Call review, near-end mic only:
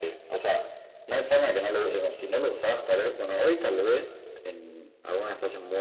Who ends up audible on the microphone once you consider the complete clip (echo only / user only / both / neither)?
echo only